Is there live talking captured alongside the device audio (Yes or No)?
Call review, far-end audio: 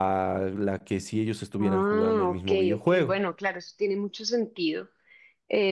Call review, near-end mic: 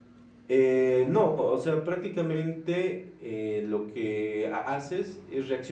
Yes